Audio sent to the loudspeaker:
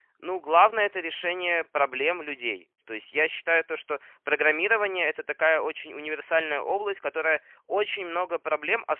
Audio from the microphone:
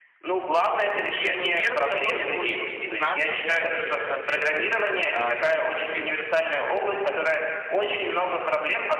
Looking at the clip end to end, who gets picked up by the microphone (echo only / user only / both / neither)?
both